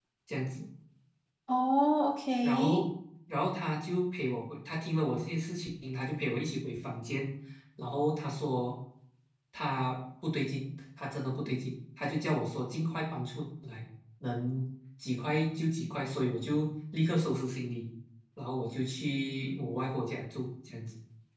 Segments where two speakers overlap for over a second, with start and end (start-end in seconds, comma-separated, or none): none